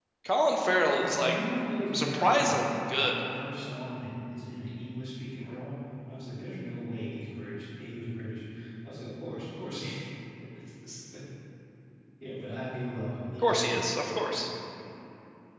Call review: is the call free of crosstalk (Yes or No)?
No